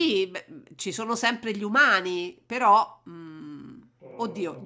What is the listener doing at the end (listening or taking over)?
listening